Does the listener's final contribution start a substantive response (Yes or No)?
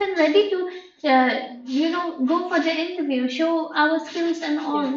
No